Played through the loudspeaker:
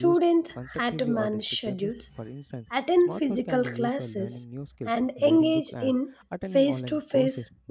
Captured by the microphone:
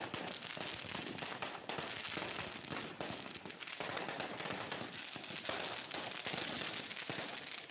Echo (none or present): none